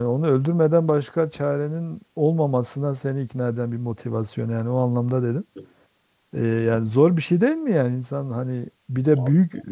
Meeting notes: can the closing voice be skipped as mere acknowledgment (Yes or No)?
Yes